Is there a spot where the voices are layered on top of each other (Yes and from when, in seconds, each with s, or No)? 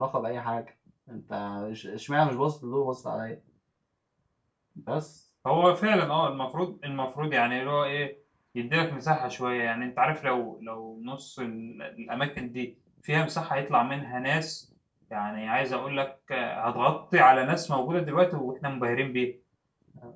No